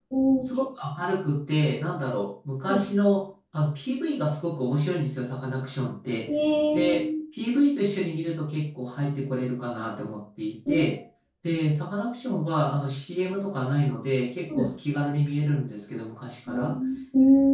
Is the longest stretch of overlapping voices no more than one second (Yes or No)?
Yes